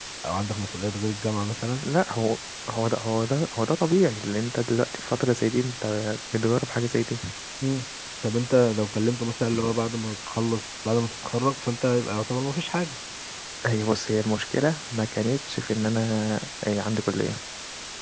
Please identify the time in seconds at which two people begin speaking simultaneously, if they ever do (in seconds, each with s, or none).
none